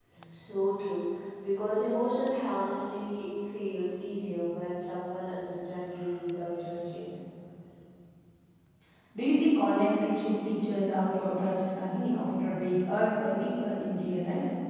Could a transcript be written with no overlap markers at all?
Yes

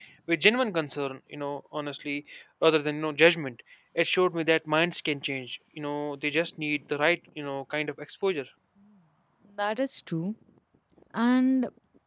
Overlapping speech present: No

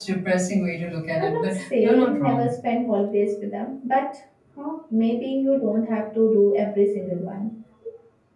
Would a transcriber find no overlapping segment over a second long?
No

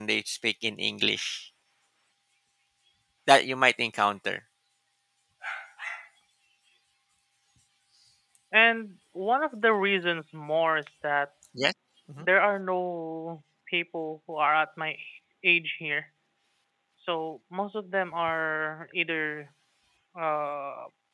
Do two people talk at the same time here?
No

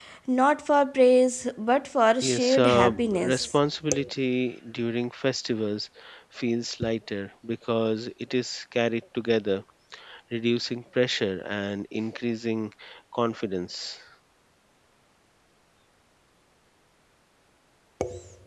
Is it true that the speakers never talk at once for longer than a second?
No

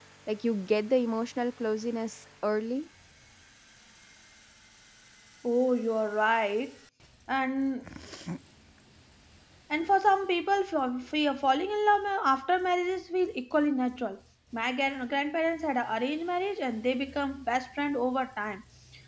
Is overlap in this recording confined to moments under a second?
Yes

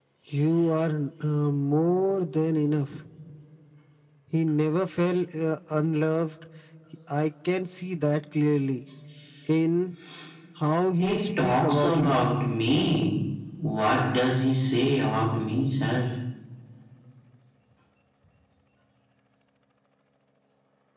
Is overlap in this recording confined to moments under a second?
No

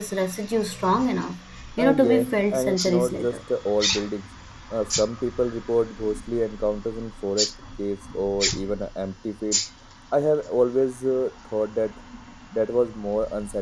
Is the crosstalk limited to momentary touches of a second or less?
No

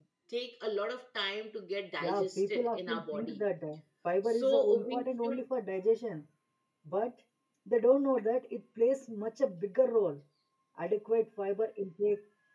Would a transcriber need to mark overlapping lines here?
Yes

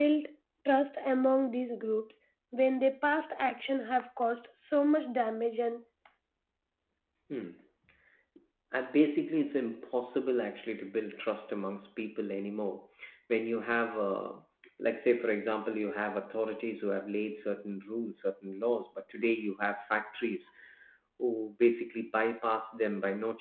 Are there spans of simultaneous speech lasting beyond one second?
No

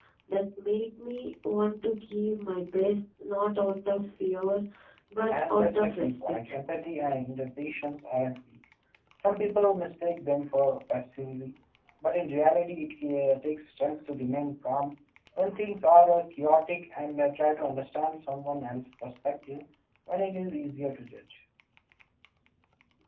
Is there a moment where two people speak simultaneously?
Yes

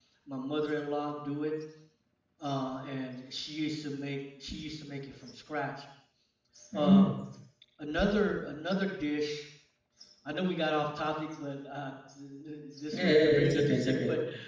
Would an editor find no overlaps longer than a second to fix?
No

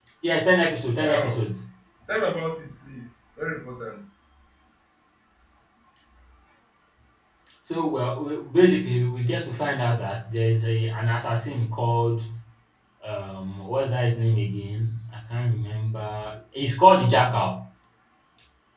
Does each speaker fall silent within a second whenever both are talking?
Yes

